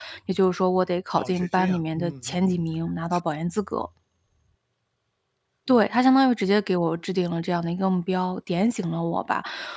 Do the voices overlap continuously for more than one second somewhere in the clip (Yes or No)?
Yes